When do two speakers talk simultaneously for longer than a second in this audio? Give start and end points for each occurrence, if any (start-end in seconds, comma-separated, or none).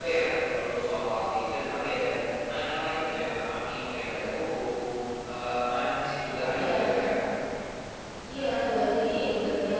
none